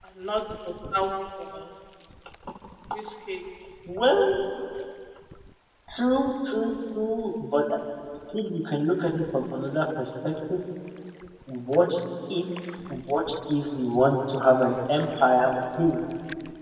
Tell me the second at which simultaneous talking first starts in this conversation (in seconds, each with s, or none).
none